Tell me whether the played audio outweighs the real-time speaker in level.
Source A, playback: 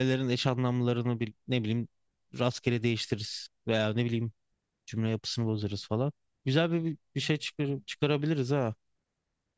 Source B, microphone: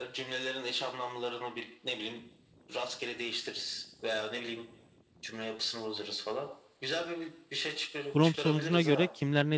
No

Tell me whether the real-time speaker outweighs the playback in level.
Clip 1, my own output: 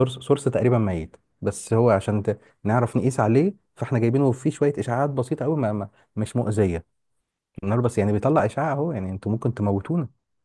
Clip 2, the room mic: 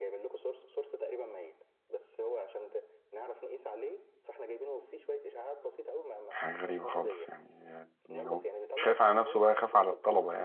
Yes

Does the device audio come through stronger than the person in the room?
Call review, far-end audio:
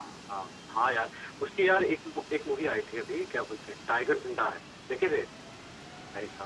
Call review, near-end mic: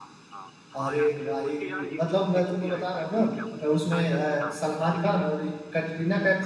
No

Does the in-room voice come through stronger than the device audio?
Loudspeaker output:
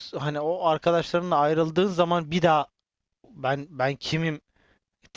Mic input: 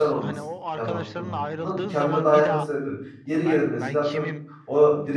Yes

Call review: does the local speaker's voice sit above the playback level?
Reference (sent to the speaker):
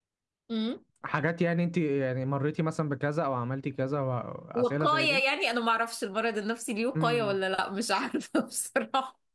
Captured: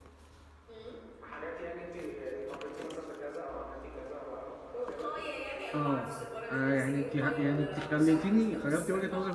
Yes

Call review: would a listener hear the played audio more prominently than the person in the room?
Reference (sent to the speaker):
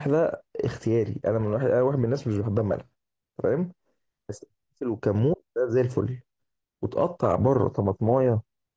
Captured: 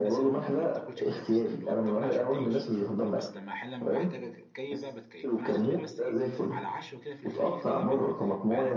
Yes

